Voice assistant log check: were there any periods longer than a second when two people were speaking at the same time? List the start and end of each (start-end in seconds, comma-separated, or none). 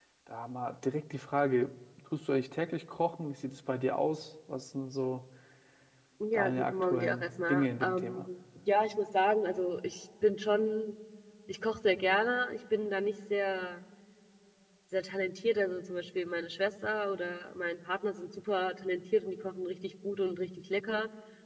6.3-8.3